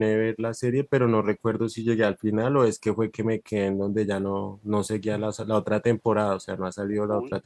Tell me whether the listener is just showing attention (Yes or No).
No